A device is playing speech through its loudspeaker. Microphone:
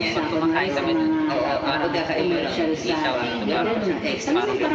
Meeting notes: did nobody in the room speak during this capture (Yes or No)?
No